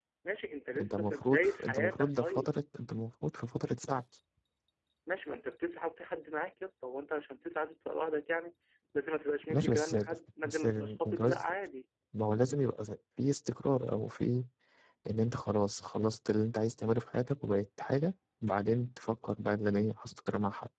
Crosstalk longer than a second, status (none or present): present